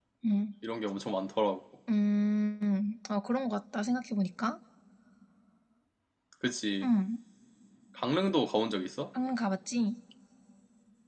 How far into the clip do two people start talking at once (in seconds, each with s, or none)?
none